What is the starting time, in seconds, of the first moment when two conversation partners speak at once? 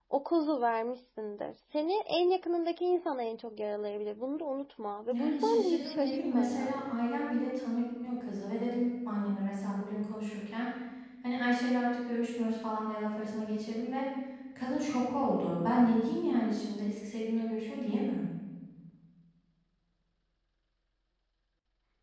5 s

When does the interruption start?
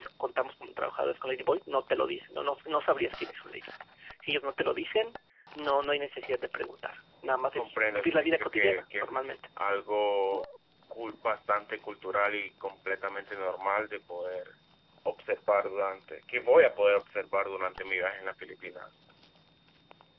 8 s

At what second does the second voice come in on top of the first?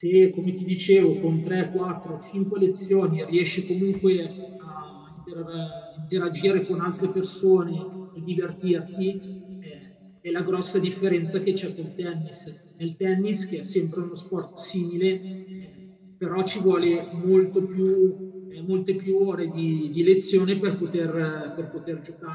none

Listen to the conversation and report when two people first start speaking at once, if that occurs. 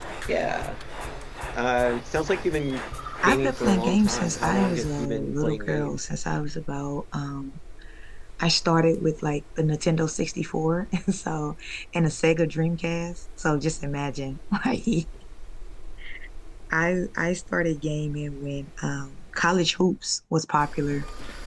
3 s

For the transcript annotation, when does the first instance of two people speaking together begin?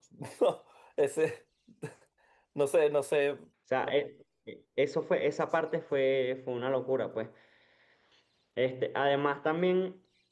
none

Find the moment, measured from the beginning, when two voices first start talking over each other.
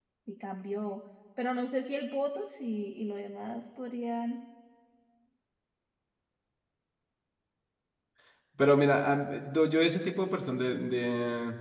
none

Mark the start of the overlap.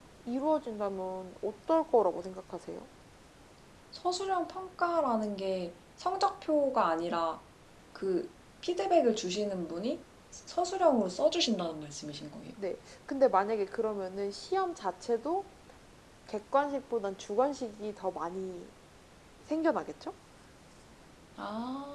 none

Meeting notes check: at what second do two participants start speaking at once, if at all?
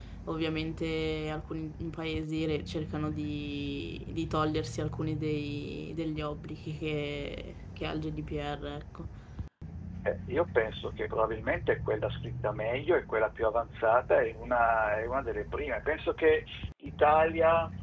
none

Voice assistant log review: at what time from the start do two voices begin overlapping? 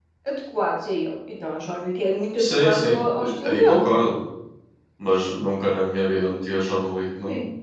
2 s

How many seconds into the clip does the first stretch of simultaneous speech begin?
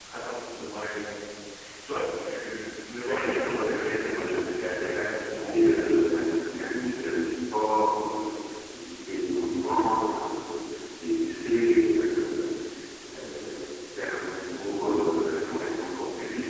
3 s

